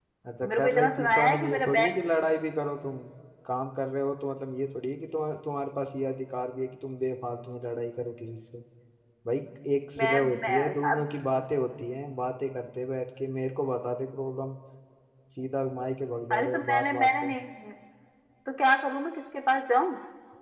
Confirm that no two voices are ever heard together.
No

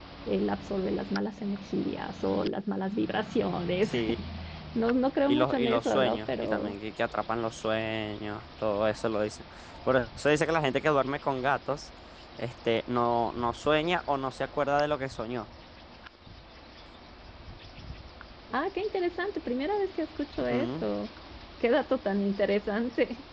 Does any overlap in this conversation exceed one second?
Yes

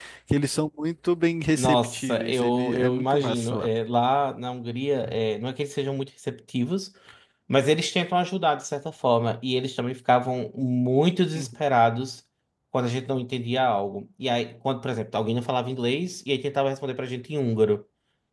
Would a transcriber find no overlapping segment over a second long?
No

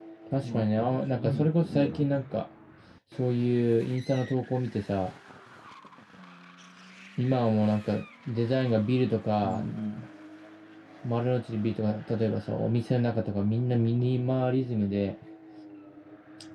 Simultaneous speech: Yes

